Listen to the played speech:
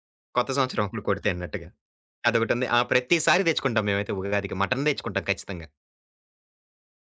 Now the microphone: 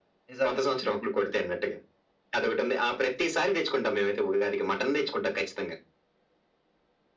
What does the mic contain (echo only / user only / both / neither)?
both